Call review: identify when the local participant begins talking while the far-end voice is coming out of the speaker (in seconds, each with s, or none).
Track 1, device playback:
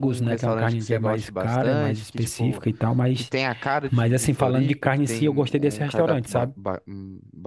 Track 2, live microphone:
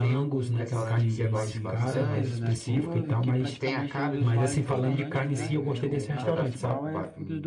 0.7 s